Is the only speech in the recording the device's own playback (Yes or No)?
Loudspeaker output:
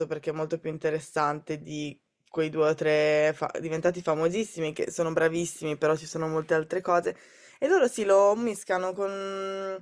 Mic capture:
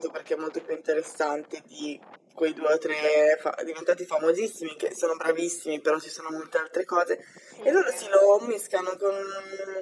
No